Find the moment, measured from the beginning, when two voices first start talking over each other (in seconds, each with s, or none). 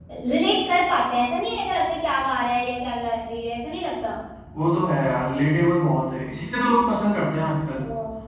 none